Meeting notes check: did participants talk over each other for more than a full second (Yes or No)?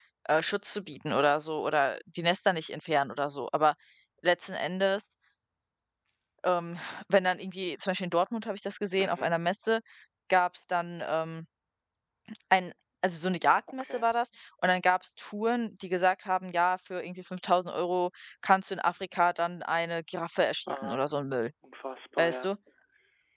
No